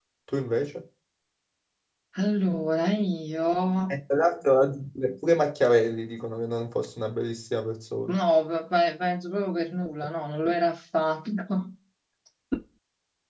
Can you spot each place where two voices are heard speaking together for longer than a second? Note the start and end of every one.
none

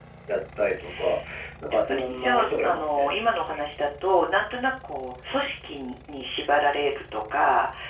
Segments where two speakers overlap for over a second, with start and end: 1.9-3.1

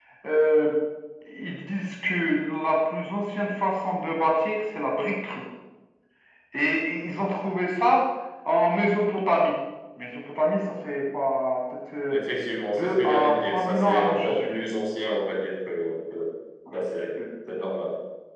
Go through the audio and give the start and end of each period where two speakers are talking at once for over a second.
12.7-14.7

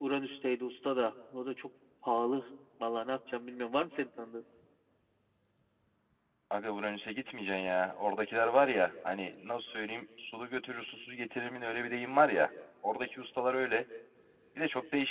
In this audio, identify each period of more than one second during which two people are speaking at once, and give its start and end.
none

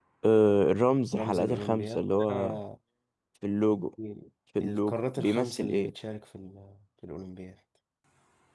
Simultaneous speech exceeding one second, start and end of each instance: 1.2-2.6, 4.6-5.9

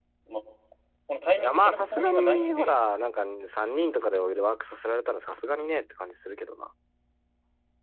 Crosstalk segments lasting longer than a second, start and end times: 1.4-2.7

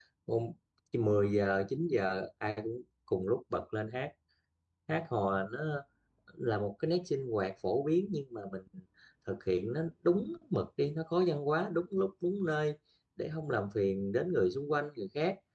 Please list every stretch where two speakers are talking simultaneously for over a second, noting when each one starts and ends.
none

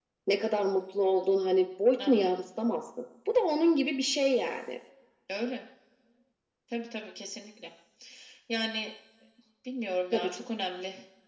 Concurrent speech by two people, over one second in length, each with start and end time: none

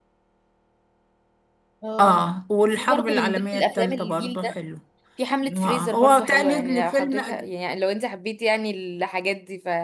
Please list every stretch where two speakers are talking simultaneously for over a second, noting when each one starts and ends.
2.7-4.5, 5.5-7.2

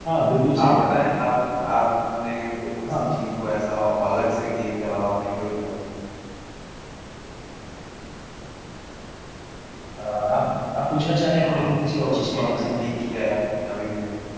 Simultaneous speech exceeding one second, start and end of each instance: 11.4-12.7

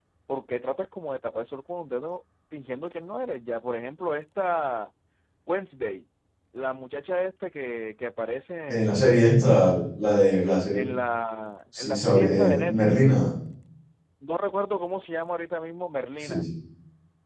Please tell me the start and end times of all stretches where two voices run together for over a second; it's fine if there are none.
11.8-13.2

